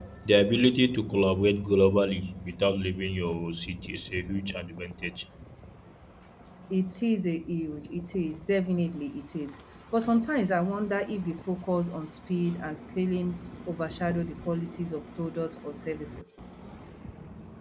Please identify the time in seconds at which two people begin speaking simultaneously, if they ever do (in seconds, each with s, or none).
none